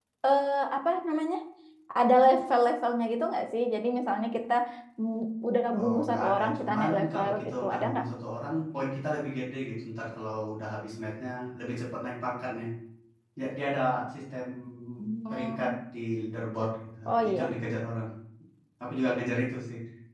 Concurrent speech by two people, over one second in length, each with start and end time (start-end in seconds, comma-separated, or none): 5.8-8.0